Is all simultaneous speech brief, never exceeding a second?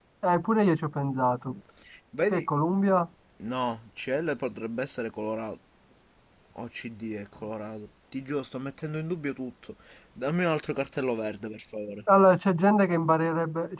Yes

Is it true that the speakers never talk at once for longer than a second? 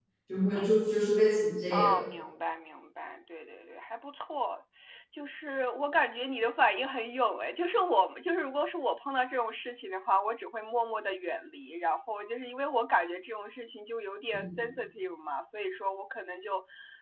Yes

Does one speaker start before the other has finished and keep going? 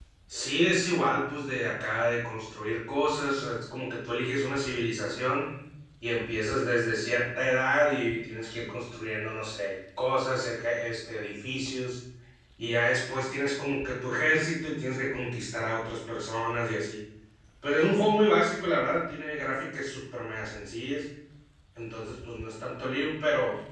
No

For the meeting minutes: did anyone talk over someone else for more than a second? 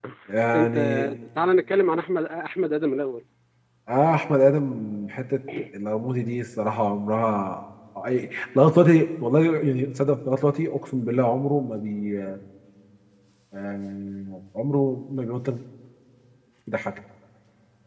No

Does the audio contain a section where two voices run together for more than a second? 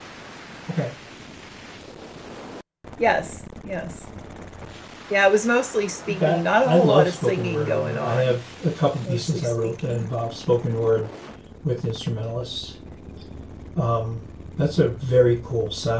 Yes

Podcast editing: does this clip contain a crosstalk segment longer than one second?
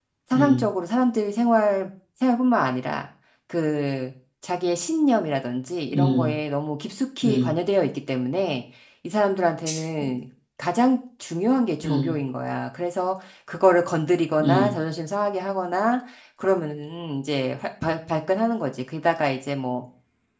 No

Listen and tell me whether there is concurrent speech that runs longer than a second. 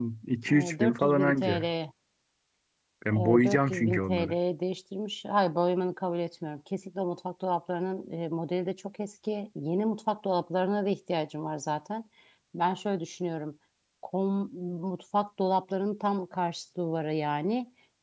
Yes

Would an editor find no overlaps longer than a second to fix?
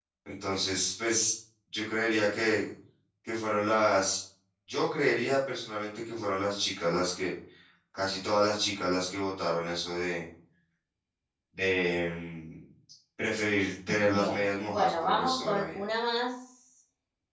No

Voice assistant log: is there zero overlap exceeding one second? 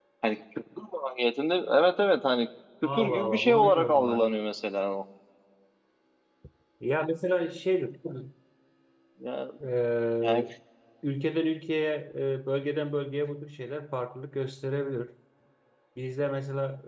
No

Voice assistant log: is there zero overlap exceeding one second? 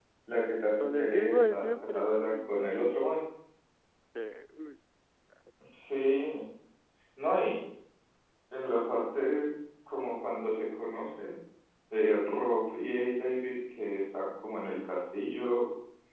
No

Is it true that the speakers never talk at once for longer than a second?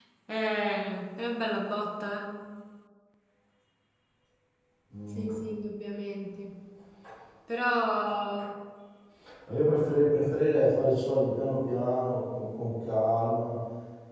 Yes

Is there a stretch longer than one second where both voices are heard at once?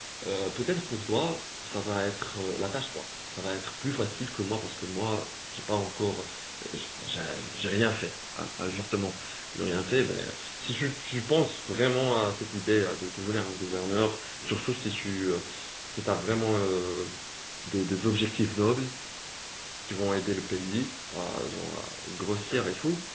No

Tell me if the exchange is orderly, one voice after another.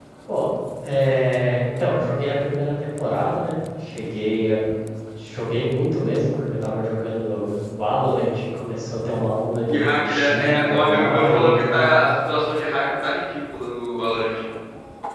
No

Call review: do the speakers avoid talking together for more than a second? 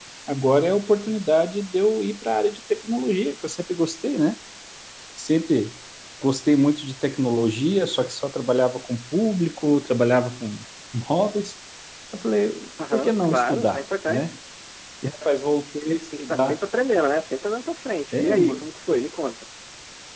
No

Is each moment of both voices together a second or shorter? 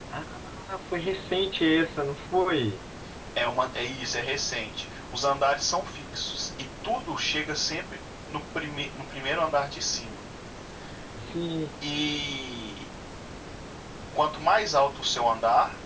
Yes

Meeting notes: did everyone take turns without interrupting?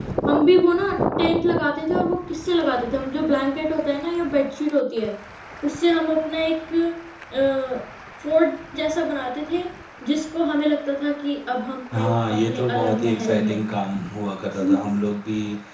No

